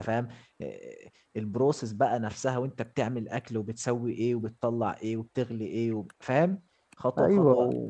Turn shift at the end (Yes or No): Yes